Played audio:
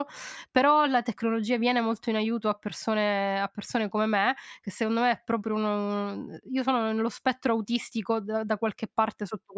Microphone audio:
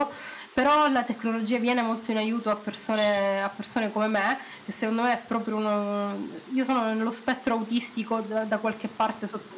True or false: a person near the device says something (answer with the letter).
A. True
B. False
B